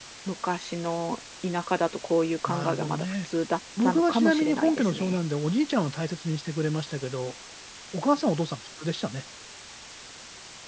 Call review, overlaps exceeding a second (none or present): present